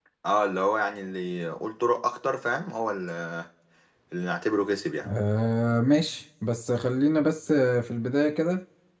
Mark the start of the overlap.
none

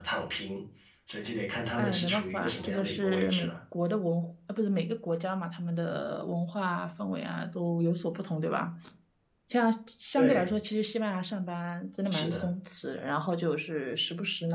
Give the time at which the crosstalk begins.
1.8 s

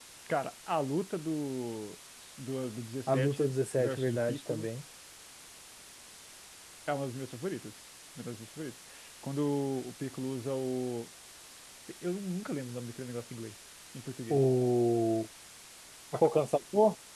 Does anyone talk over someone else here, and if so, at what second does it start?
3.1 s

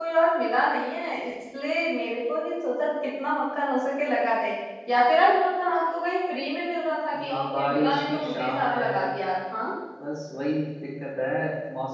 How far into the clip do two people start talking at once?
7.1 s

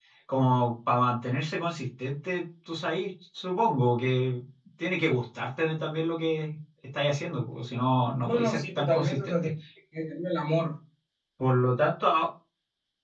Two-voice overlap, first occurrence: 8.2 s

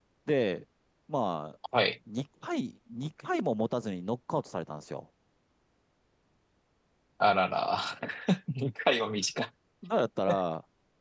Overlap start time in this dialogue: none

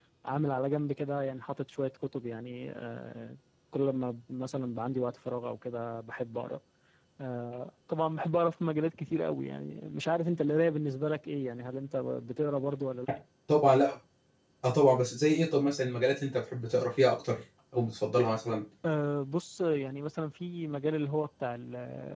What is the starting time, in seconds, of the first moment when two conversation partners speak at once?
none

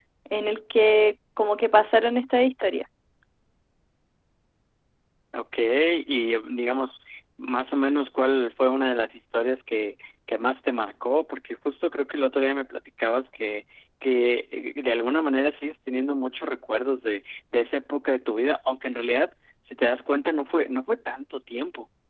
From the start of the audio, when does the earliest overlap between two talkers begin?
none

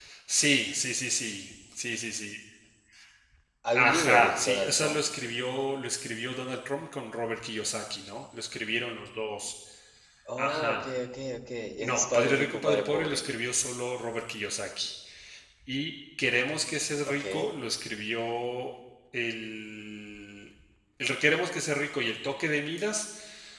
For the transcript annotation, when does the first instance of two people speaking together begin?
3.7 s

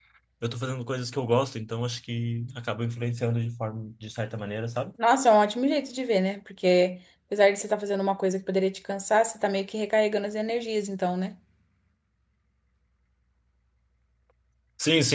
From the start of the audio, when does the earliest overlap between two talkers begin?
none

